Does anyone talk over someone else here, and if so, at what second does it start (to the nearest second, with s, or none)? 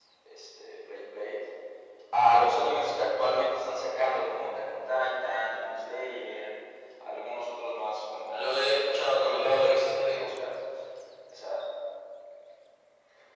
8 s